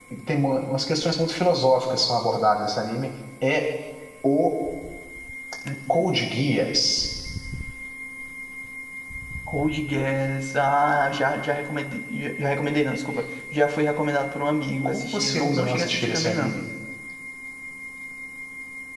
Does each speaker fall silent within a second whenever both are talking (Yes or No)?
No